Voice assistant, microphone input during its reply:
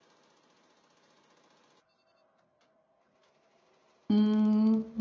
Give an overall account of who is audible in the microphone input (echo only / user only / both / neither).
user only